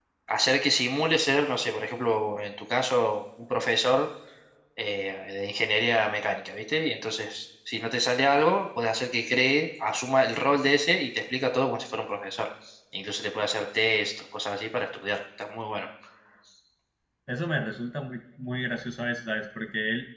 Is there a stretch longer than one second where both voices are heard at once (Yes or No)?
No